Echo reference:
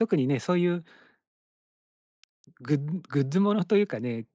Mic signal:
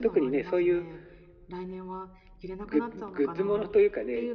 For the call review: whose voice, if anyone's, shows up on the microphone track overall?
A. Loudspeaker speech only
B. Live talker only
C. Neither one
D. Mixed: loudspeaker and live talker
D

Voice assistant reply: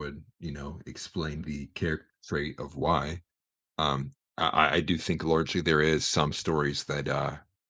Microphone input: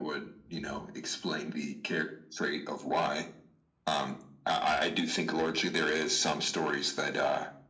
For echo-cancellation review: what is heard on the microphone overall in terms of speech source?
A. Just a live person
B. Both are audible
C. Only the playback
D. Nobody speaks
C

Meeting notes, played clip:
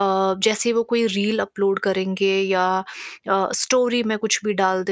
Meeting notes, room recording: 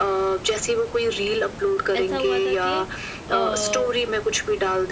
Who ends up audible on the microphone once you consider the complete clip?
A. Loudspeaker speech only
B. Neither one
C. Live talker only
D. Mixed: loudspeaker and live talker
D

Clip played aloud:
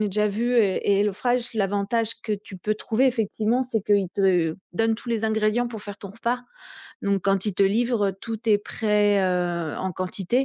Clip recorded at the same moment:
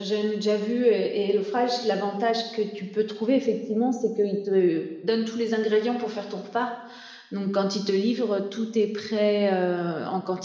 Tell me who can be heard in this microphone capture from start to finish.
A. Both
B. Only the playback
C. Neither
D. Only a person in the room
B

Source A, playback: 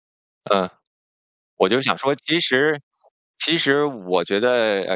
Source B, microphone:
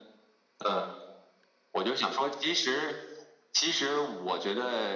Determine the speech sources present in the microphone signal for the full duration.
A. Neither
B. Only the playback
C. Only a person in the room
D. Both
B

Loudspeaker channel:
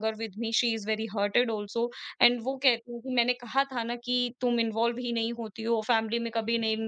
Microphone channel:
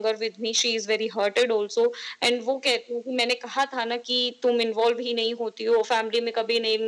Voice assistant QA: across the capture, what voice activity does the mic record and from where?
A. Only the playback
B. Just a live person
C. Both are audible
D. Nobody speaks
A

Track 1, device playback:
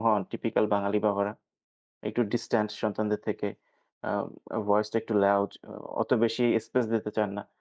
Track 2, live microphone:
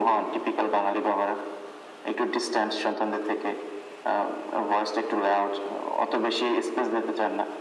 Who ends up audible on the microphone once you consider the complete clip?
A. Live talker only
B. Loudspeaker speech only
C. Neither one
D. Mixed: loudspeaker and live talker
B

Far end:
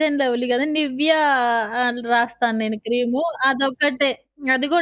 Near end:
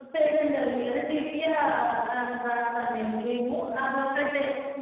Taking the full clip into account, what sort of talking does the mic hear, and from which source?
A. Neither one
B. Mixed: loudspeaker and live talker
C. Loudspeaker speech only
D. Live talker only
C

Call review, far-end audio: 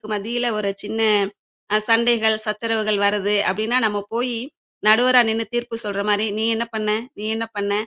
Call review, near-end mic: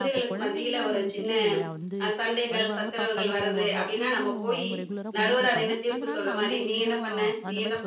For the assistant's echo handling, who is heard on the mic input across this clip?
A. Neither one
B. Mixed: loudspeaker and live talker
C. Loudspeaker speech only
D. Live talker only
B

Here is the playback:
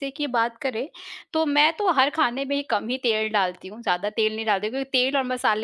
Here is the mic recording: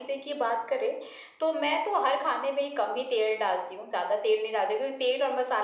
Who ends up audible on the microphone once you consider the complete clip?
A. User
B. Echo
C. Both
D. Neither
B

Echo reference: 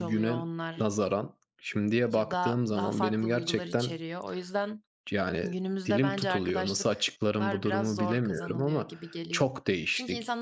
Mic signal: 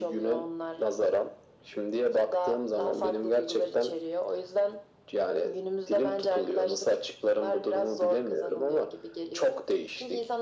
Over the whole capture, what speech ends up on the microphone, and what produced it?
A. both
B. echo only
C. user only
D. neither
B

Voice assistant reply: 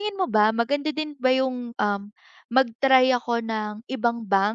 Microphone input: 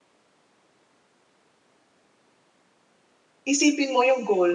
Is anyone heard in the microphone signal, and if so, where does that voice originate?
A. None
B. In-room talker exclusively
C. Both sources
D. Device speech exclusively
B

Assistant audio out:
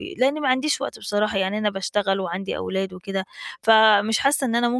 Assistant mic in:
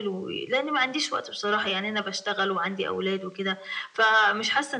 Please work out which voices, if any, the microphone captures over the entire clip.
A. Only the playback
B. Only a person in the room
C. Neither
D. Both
A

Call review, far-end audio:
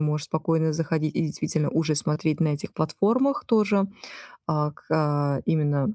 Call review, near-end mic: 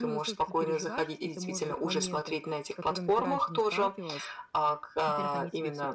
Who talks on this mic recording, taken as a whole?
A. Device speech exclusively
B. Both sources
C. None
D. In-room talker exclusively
B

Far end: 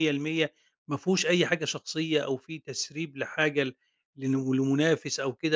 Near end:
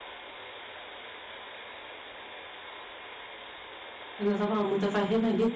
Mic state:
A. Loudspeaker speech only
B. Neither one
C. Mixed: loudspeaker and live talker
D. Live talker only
D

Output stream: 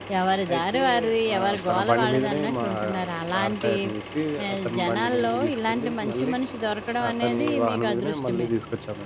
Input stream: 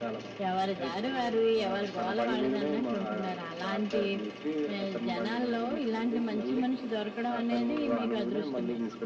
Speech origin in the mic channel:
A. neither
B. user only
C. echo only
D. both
C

